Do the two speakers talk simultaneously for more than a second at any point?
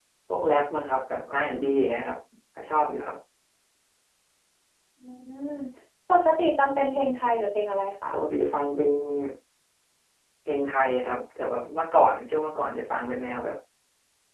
No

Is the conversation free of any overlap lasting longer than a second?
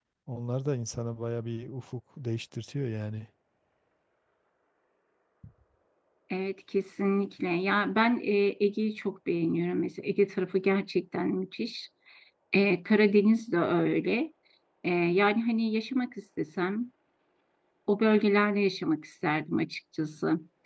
Yes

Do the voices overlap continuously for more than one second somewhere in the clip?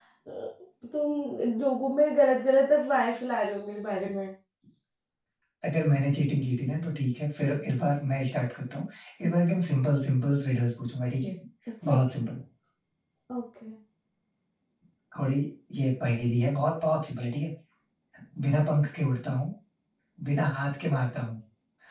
No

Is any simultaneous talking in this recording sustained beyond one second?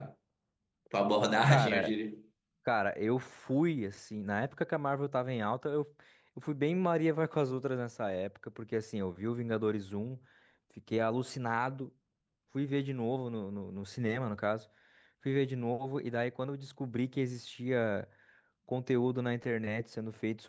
No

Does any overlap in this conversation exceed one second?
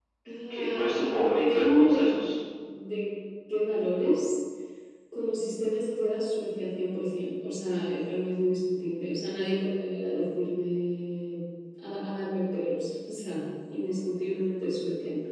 Yes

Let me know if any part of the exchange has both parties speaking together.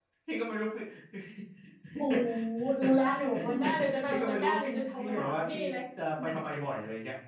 Yes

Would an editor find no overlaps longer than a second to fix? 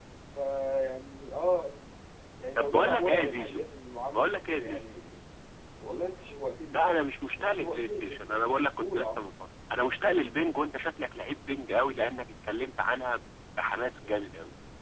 No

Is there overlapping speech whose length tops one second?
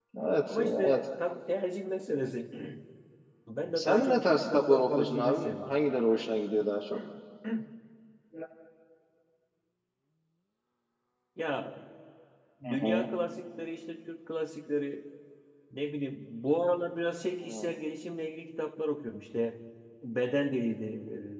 Yes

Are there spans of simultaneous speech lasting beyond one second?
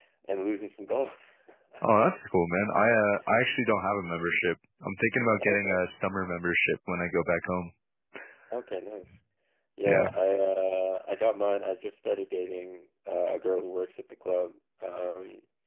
No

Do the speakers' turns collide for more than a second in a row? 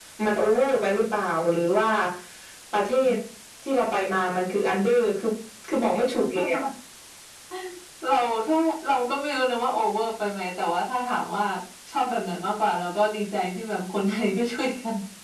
No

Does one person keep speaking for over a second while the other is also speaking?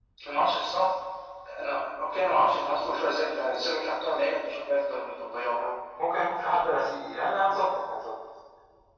No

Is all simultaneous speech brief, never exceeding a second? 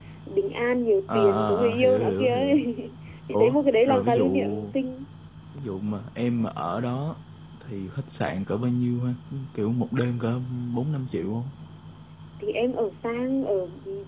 No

